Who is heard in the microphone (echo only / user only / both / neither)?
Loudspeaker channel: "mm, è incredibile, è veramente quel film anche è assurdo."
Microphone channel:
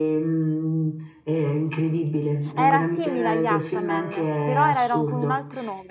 both